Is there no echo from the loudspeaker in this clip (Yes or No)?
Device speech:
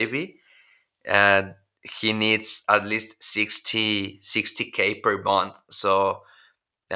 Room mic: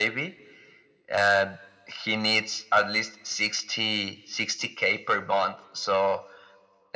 No